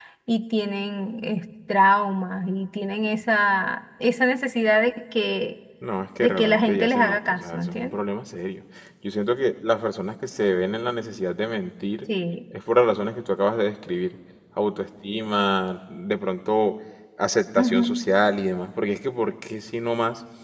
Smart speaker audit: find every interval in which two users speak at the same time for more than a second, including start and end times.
6.2-7.9

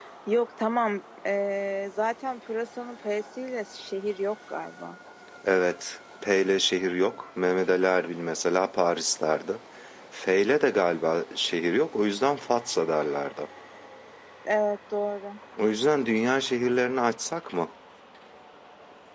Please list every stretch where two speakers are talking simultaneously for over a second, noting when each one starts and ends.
none

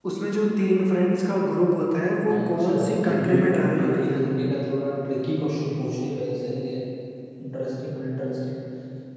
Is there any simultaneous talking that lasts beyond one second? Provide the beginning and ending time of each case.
2.3-4.3

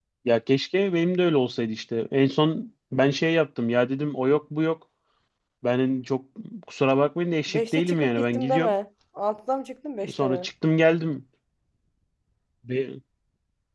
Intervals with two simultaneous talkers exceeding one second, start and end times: 7.5-8.7

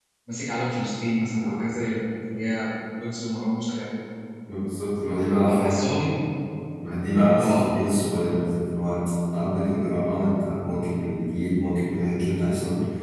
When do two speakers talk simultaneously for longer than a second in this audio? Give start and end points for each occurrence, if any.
none

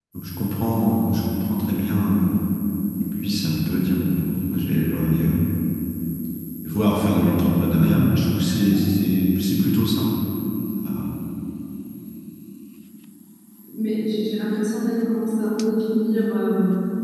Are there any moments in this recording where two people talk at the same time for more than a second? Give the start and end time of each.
none

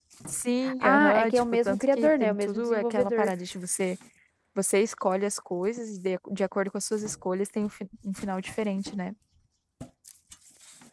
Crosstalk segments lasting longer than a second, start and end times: 0.8-3.3

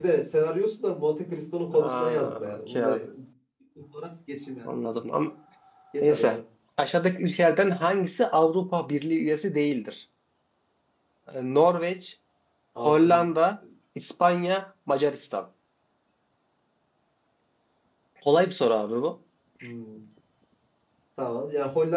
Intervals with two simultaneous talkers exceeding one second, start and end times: 1.7-3.0

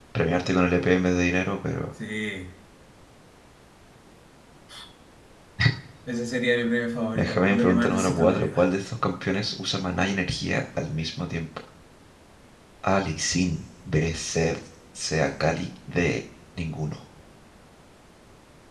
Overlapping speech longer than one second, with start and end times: 7.2-8.7

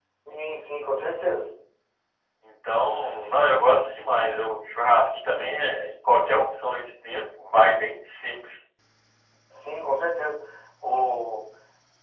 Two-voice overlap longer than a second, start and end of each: none

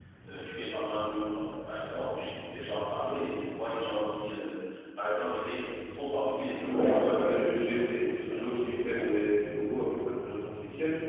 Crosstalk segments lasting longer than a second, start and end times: 6.6-9.1

